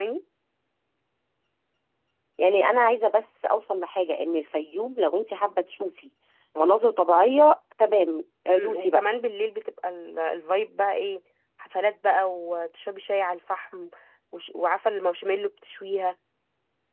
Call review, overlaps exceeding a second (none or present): none